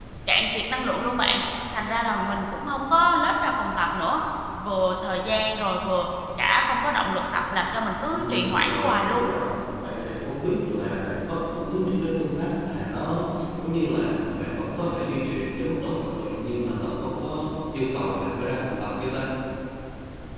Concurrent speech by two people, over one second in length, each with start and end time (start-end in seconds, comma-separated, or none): 8.1-9.3